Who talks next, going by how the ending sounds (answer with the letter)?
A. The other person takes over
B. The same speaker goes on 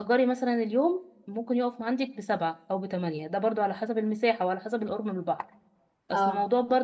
B